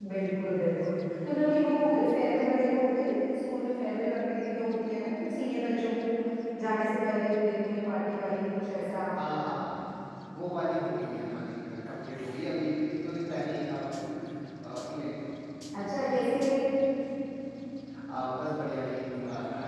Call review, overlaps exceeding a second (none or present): none